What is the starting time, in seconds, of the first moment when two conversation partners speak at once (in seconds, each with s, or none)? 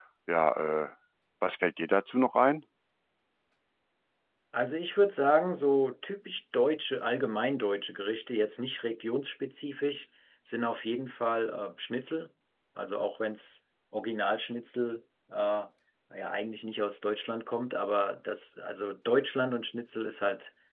none